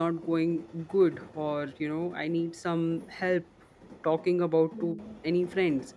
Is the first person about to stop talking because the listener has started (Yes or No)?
No